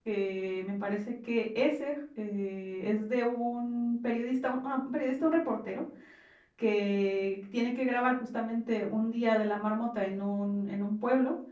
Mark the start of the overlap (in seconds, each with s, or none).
none